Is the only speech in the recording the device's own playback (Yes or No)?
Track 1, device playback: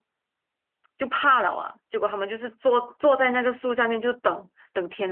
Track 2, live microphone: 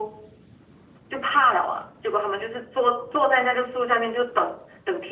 Yes